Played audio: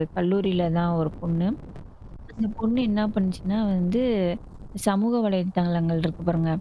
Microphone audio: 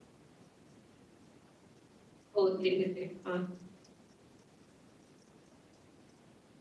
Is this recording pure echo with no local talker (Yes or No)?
No